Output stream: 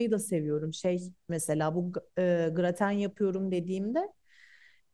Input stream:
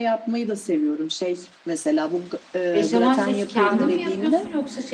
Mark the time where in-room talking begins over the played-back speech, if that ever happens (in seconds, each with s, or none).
2.7 s